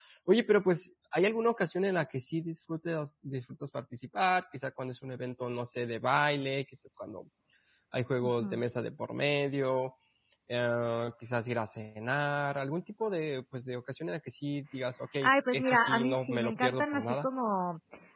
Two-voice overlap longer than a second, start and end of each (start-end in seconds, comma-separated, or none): 15.2-17.3